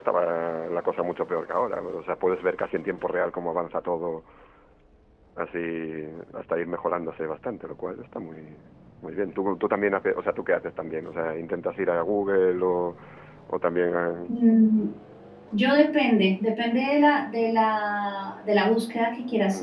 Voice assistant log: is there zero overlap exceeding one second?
Yes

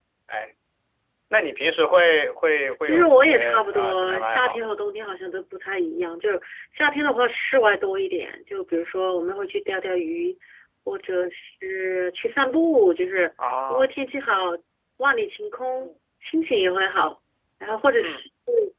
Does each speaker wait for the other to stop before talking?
No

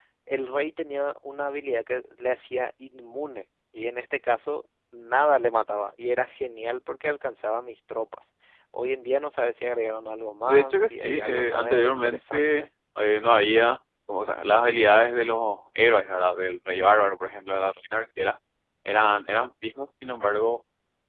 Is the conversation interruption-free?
No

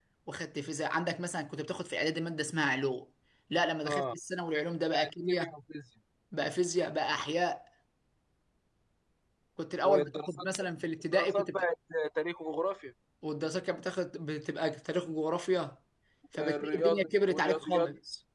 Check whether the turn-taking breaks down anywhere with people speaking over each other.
Yes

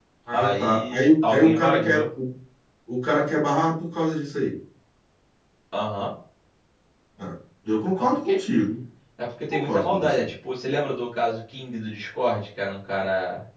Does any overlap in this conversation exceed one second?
Yes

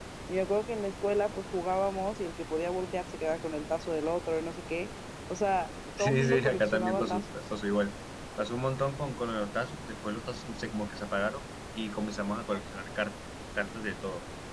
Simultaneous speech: Yes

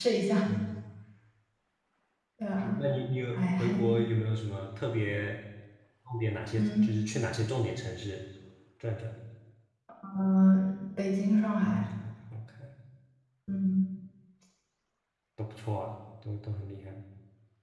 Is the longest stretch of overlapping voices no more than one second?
Yes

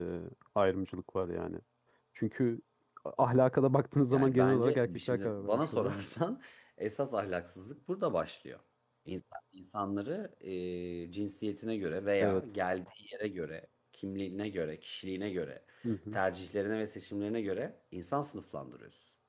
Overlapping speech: Yes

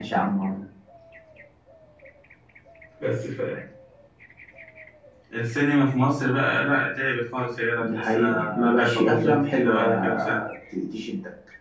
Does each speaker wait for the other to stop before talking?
No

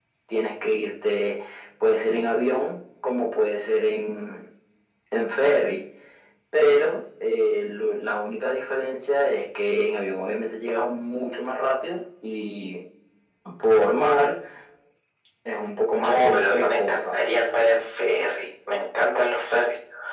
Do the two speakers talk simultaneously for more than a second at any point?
Yes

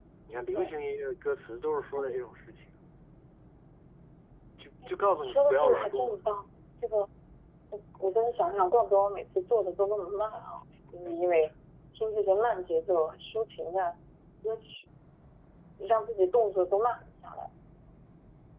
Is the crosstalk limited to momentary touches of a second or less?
No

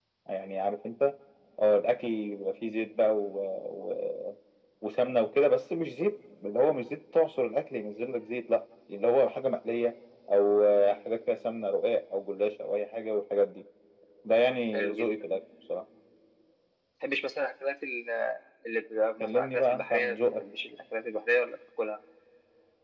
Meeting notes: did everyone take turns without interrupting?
No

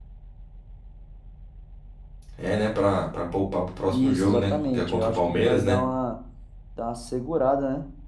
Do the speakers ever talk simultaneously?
Yes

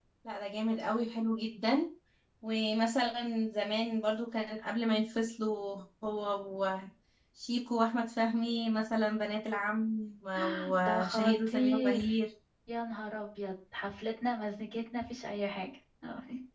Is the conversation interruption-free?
No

